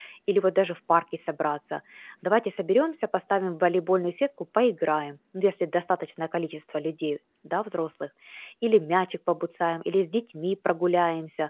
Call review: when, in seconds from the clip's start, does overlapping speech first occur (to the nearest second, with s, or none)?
none